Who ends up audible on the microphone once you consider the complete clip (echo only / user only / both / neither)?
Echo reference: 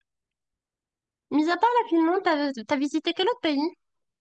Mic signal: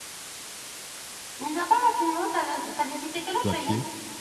both